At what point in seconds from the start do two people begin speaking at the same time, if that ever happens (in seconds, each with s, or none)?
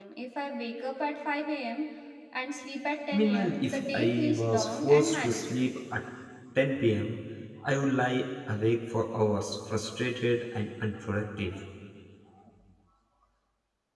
3.1 s